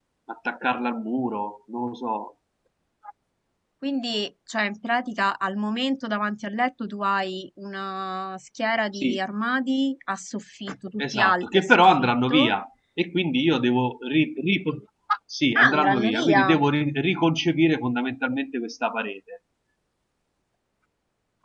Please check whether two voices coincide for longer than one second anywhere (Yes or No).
Yes